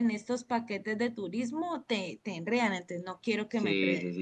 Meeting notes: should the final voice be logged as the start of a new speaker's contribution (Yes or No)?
Yes